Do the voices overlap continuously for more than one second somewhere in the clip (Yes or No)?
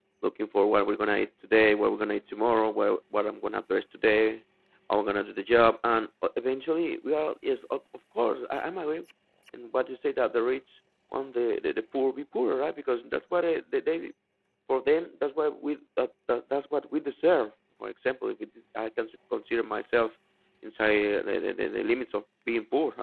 No